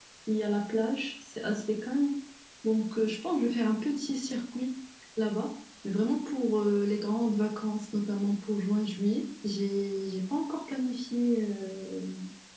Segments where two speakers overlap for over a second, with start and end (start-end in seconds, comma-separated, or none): none